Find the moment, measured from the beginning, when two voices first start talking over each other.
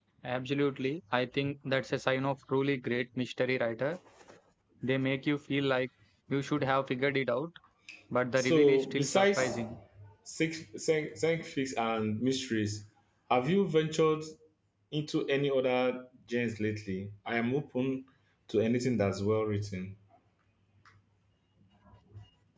8.4 s

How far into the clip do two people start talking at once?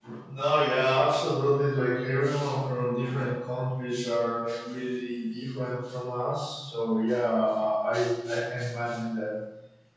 none

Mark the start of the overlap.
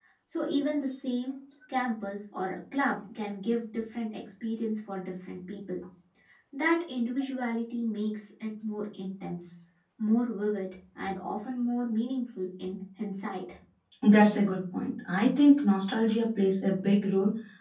none

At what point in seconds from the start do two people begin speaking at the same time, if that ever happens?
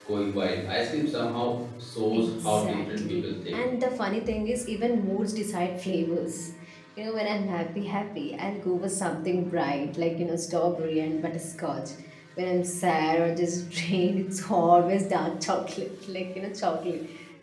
2.1 s

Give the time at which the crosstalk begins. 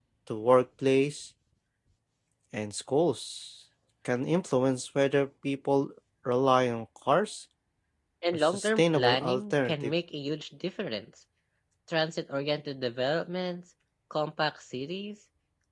8.3 s

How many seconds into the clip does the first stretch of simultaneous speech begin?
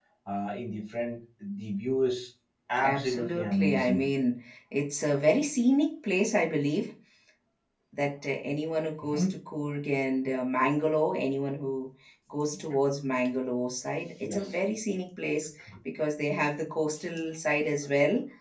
2.8 s

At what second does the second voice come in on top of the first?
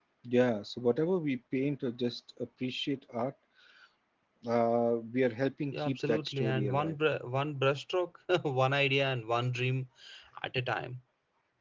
5.7 s

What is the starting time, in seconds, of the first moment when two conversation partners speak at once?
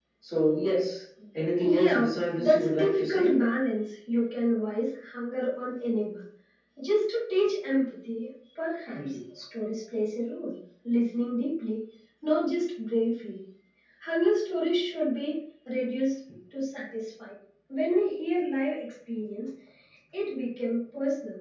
1.6 s

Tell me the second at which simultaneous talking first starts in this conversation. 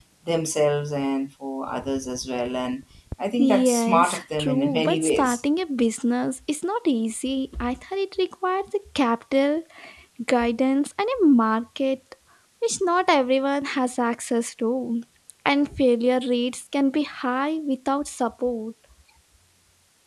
3.4 s

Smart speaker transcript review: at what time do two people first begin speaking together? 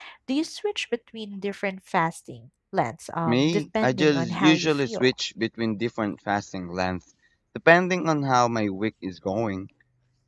3.2 s

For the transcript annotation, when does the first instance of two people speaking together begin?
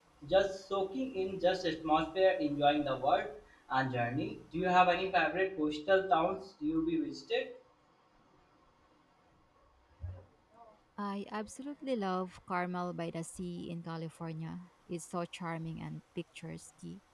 none

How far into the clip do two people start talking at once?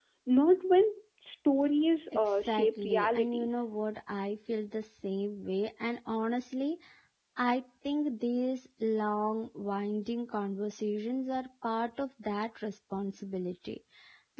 2.1 s

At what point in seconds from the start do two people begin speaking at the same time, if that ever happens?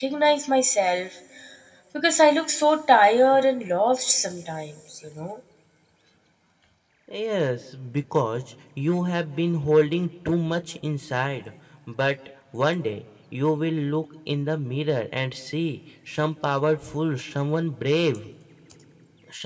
none

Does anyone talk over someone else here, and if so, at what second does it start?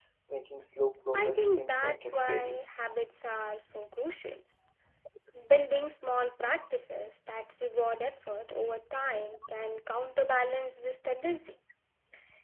1.2 s

